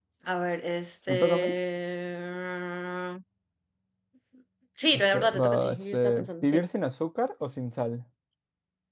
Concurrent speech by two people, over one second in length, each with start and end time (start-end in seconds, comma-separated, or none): 4.9-6.6